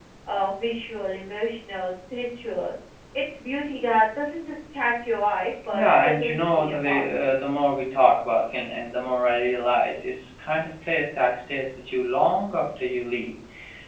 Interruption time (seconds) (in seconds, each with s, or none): 5.7 s